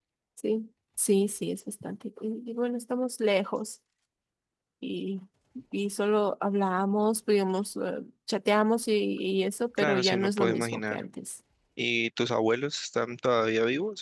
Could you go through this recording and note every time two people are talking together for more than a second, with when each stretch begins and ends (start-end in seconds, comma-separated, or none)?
9.8-11.0